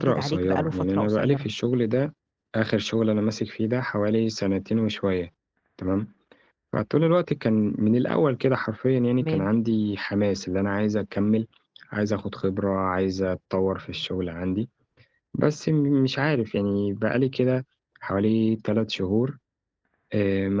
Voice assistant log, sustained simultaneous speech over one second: present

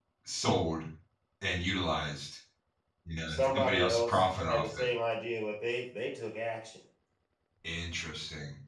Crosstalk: present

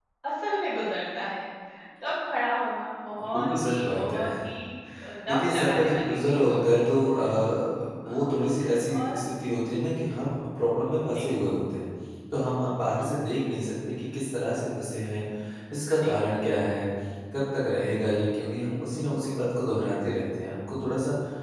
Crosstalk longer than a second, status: present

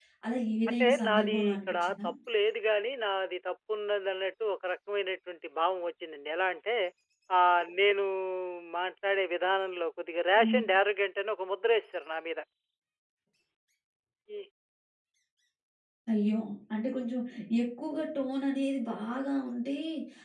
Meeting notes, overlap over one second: present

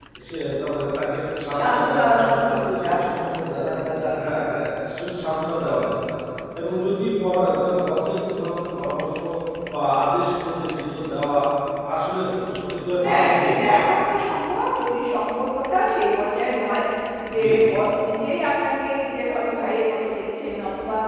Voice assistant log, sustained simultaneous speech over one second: present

